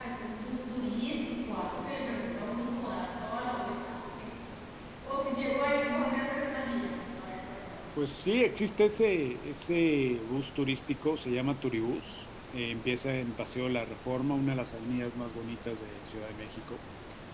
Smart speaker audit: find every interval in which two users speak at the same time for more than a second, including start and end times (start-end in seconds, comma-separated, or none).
none